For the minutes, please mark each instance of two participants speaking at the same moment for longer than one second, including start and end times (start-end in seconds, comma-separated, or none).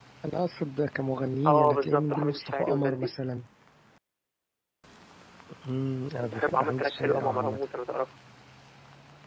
1.5-3.1, 6.2-7.6